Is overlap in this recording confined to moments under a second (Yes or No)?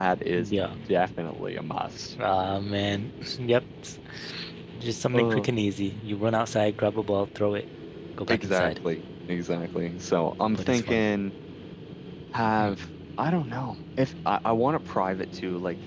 Yes